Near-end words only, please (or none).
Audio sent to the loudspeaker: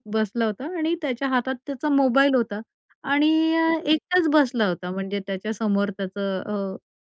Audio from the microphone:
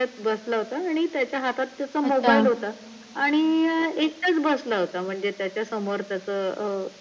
अच्छा.